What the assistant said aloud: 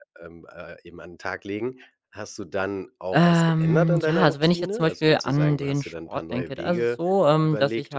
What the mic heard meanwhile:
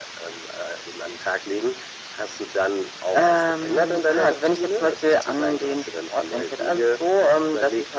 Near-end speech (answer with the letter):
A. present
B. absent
B